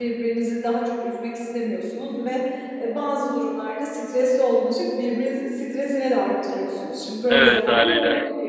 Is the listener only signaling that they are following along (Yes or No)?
Yes